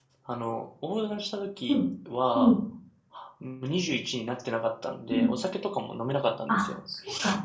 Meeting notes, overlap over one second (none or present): none